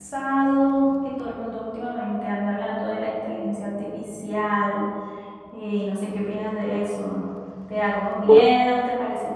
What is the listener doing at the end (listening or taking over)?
listening